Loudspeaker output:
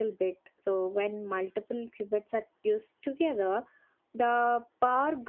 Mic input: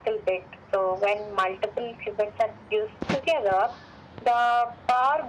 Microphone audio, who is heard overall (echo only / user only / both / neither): echo only